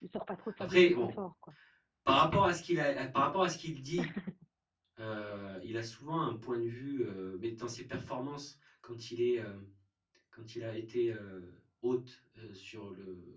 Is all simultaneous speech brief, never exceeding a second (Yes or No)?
Yes